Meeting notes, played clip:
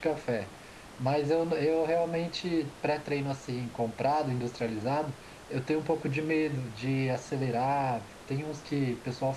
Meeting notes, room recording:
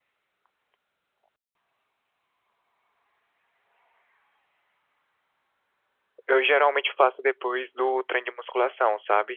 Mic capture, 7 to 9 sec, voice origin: user only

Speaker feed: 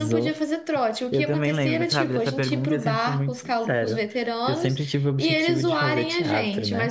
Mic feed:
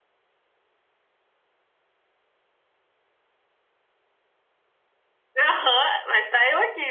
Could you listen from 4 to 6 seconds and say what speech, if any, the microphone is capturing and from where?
user only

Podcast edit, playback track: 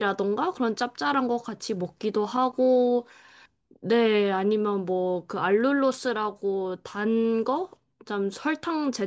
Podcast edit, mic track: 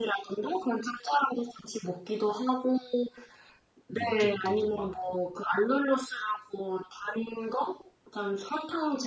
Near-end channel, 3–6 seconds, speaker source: both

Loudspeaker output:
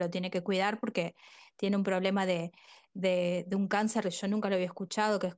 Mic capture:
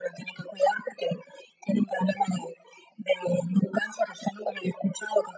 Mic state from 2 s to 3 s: echo only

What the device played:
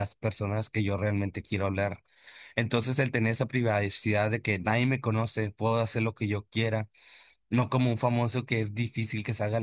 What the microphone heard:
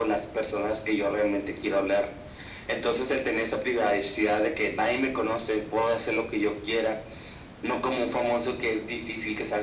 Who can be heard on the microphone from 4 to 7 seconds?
echo only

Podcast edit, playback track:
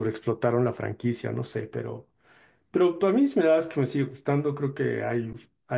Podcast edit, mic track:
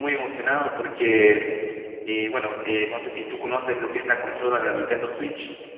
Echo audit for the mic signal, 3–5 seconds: user only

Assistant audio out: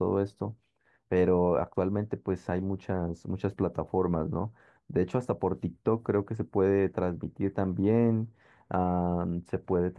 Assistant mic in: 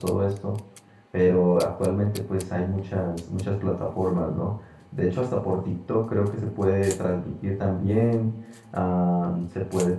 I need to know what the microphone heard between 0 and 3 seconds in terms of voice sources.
echo only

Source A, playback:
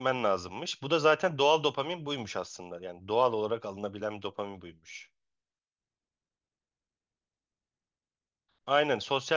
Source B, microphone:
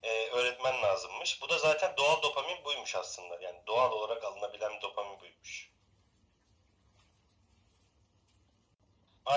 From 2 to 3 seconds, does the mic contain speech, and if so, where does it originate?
echo only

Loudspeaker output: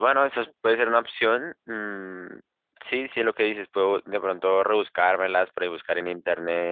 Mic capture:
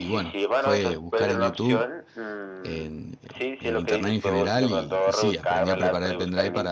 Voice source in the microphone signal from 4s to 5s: both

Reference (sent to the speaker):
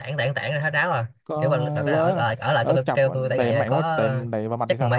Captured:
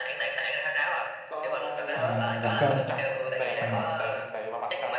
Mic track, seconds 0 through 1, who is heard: echo only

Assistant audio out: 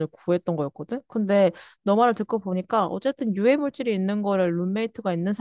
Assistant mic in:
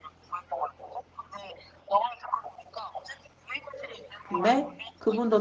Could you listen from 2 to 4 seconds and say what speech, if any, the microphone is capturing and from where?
echo only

